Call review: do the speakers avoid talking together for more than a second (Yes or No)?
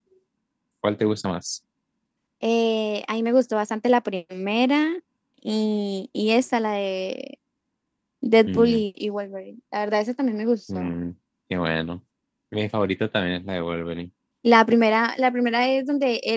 Yes